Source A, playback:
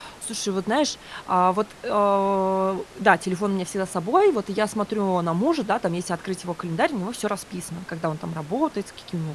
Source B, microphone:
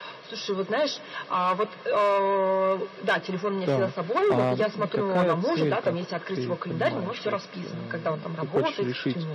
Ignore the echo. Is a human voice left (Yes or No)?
Yes